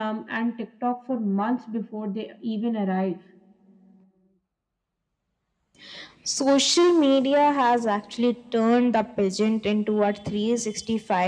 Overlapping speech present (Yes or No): No